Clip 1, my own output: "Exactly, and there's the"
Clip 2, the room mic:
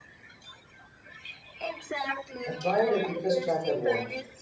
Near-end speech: present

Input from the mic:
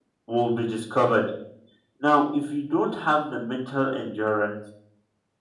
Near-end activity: present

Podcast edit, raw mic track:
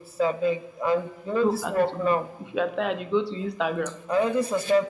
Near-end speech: present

